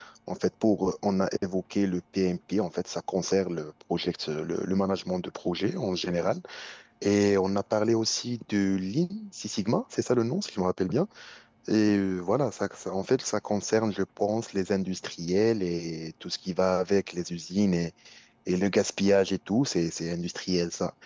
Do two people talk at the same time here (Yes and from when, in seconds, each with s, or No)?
No